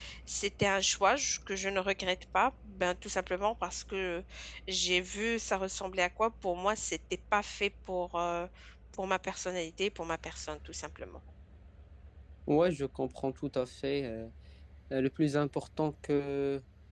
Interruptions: none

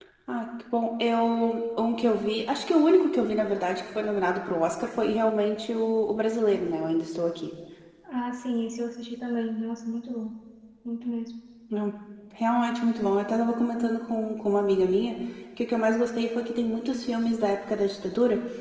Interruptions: none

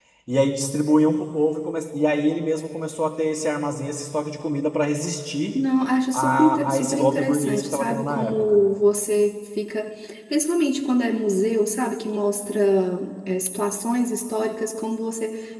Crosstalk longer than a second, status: present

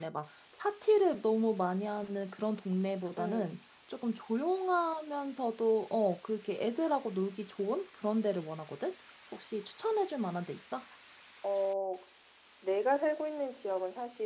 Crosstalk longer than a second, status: none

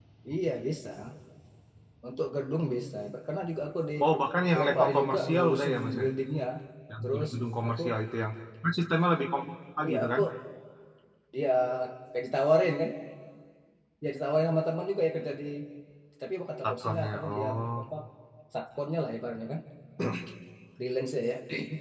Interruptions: present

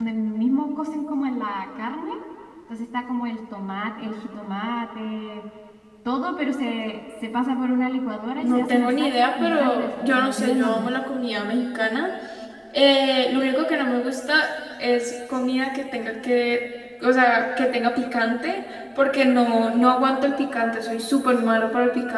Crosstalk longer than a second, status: present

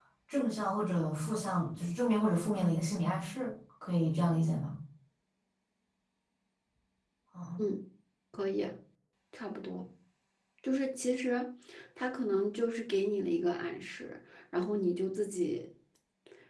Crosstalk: none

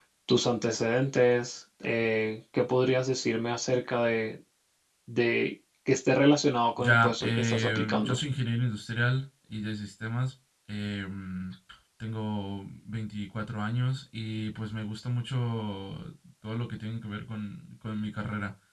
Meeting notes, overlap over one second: present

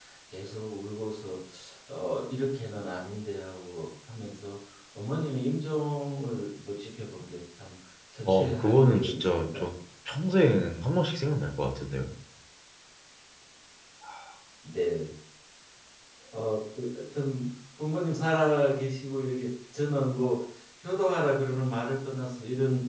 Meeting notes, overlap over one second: present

